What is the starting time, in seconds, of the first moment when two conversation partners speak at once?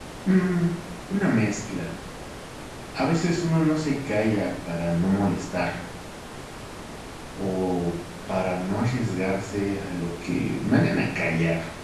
none

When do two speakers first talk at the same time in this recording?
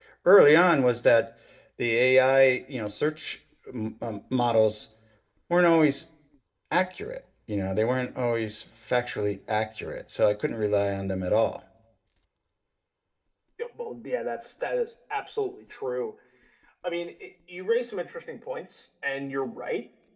none

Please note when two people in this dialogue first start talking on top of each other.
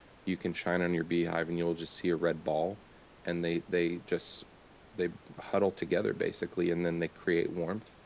none

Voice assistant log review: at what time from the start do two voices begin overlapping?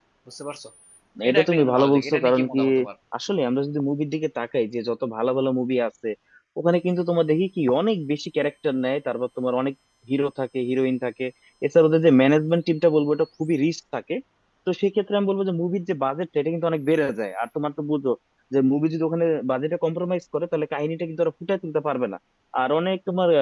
1.3 s

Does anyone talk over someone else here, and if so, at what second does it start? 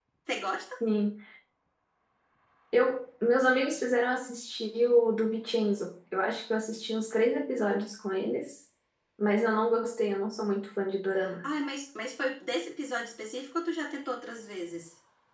none

